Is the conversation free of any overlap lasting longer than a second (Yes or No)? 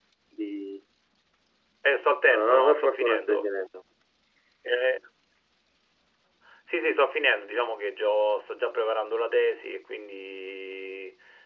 No